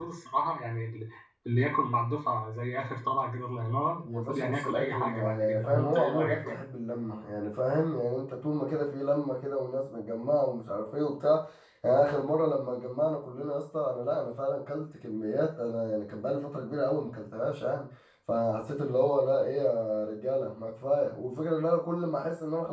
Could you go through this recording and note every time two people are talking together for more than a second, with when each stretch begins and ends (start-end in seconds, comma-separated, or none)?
4.0-6.5